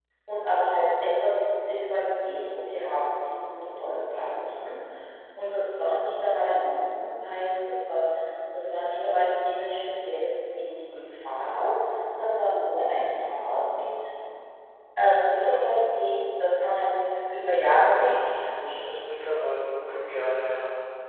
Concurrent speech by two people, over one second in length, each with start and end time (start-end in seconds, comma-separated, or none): 17.3-18.9